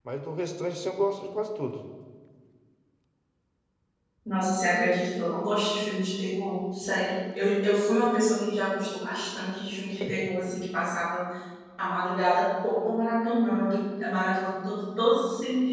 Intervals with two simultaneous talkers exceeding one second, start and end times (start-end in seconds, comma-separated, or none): none